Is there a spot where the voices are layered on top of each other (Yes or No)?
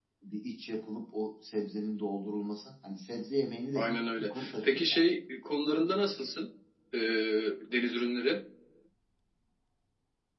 Yes